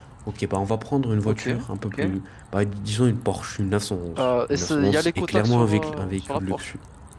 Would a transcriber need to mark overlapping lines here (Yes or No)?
Yes